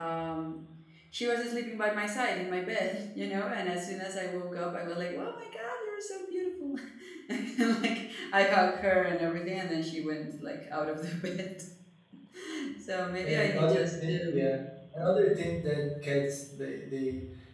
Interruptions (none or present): present